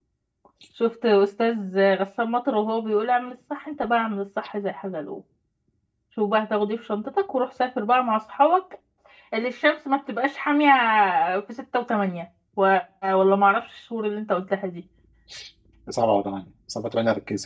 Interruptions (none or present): none